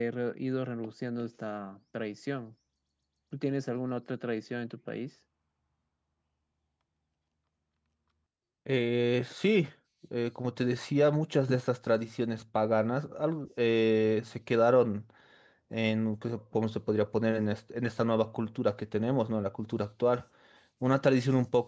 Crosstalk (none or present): none